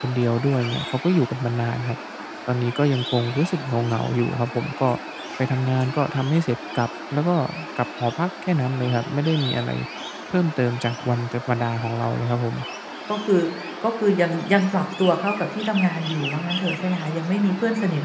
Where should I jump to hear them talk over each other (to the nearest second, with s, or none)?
none